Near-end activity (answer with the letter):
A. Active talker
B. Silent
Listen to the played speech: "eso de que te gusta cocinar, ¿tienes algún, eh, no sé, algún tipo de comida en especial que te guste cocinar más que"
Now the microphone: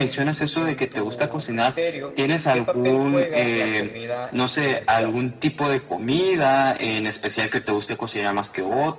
A